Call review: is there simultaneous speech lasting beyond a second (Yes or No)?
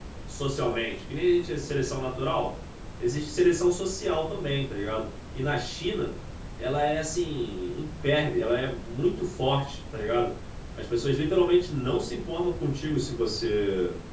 No